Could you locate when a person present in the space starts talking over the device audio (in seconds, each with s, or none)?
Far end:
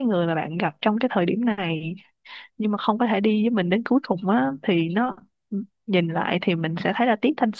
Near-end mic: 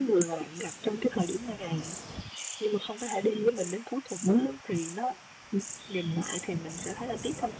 none